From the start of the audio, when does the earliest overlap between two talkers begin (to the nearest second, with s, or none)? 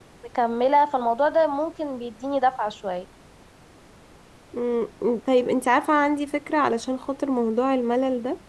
none